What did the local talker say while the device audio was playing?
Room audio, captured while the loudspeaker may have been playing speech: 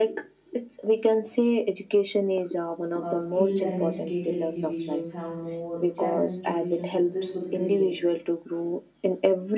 uh, skilled and educated individuals have more chances to build a successful career.

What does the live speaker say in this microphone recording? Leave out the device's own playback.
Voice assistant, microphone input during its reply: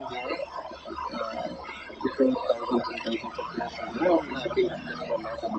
none

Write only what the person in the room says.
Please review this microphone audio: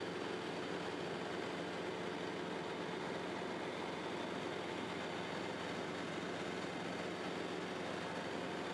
none

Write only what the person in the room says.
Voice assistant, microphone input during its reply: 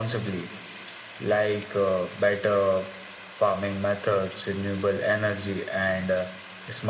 none

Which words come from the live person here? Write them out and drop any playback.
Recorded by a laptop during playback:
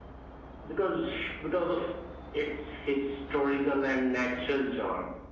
none

